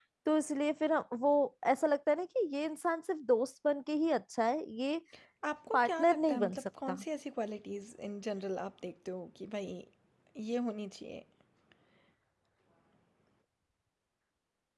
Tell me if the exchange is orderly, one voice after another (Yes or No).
No